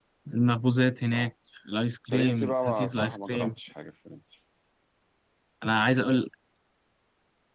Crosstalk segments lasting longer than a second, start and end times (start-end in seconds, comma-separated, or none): 2.1-3.5